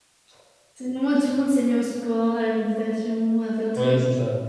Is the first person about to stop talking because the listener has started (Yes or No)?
Yes